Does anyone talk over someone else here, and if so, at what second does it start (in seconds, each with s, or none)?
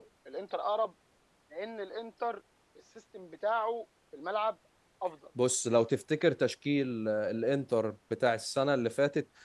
none